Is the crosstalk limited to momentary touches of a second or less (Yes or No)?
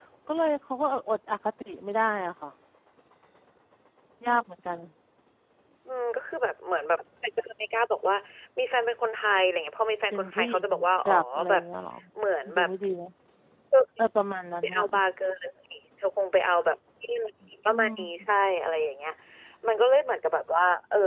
No